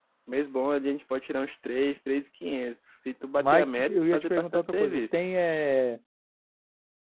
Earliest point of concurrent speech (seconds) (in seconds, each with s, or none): 3.4 s